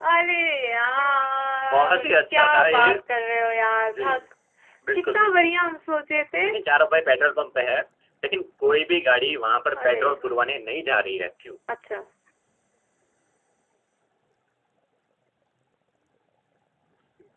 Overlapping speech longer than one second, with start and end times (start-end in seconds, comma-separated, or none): 1.7-2.9